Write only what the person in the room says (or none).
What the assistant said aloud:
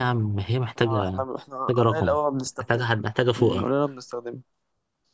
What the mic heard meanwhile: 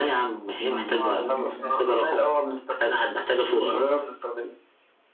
امم ممكن فعلا